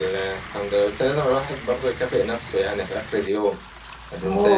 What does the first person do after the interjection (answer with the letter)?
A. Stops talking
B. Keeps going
A